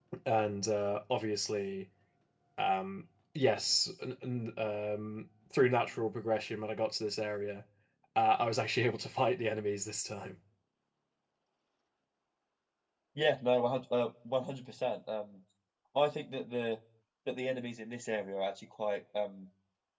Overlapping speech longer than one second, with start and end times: none

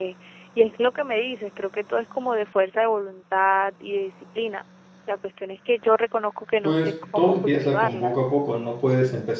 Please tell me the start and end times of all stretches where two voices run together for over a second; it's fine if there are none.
6.6-8.1

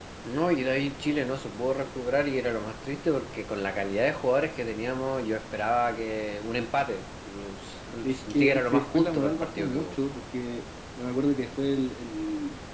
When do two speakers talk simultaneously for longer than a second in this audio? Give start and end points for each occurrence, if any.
8.0-9.9

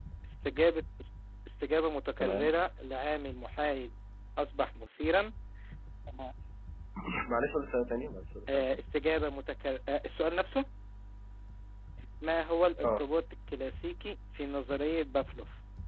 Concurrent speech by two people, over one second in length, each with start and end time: none

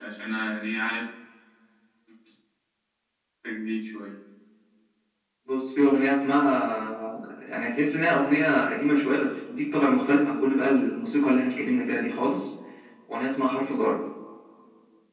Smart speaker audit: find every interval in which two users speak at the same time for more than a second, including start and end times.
none

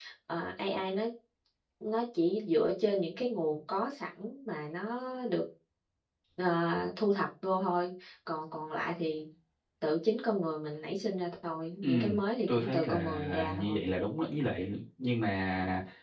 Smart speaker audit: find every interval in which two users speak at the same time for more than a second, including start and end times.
12.5-13.8

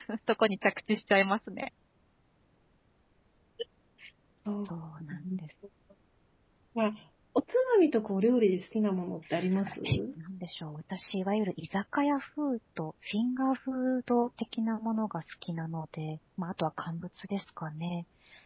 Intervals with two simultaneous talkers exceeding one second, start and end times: none

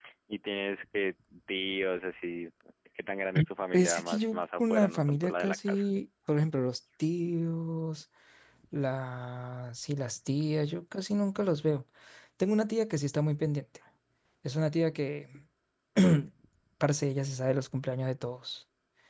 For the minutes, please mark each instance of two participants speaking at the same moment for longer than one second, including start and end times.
3.7-5.8

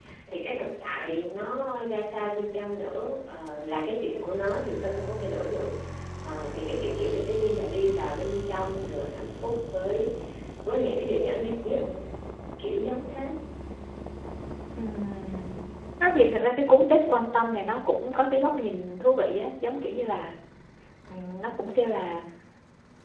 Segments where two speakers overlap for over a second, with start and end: none

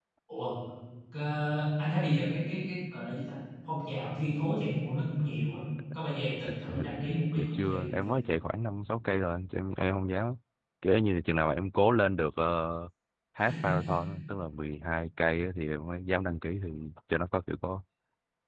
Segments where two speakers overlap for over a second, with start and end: 6.5-8.1

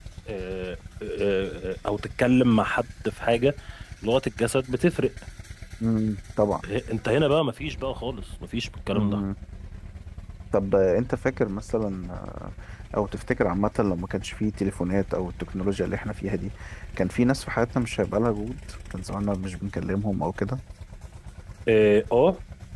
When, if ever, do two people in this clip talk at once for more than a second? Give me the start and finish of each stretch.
none

